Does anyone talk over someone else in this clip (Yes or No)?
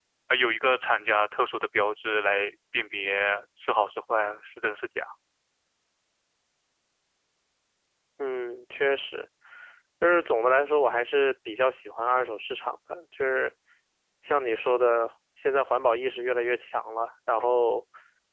No